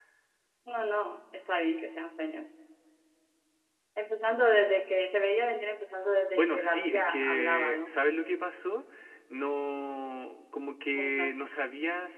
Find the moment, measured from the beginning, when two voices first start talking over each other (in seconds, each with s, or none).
6.3 s